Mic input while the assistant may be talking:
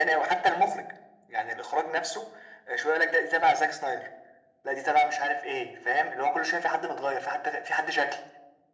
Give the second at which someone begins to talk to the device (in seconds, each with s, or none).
none